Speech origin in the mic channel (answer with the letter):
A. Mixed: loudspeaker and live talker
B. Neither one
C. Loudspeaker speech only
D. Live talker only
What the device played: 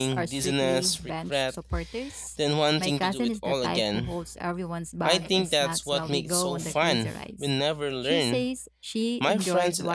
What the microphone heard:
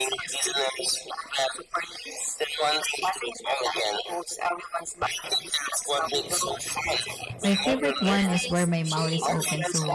A